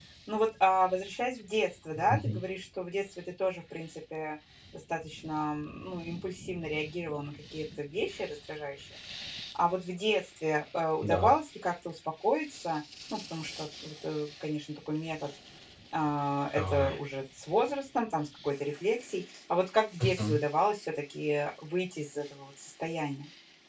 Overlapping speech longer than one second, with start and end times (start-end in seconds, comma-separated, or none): none